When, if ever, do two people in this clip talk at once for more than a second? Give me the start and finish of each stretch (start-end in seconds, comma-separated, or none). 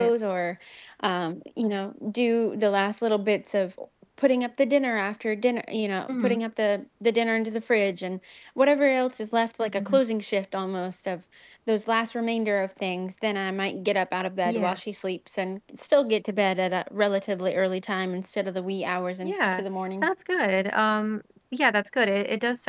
none